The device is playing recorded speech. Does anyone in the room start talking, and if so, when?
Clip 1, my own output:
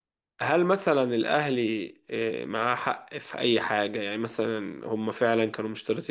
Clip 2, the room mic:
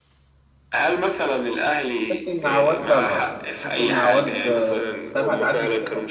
2.1 s

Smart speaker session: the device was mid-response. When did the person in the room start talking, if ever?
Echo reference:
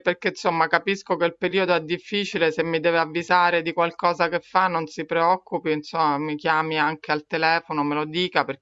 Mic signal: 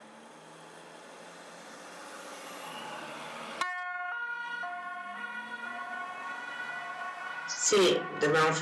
7.4 s

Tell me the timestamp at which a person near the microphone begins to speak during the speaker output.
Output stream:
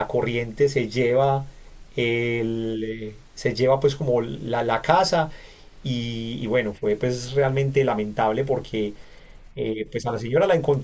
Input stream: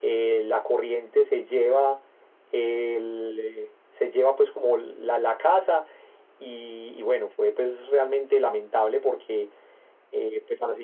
none

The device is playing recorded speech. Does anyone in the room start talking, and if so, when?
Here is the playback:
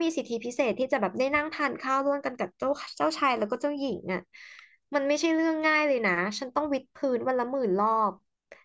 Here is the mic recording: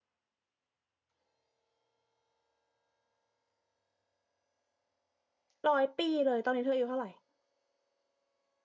5.7 s

